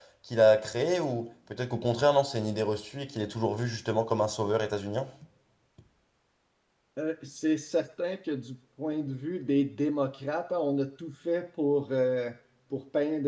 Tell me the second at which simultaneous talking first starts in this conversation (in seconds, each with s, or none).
none